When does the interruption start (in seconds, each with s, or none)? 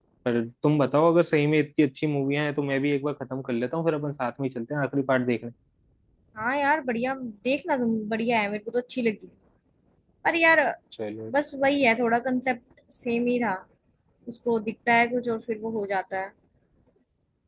none